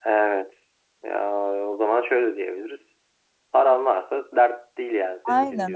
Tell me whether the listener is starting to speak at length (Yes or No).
Yes